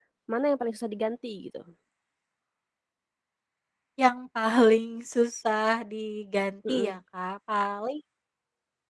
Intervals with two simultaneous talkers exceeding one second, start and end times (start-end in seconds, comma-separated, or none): none